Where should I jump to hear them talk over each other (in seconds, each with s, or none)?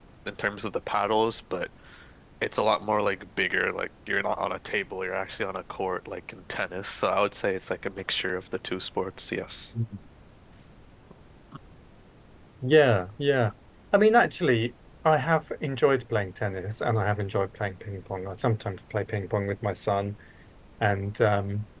none